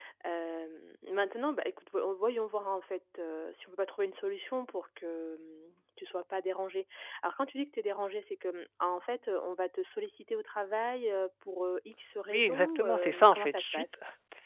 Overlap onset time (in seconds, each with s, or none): 12.3 s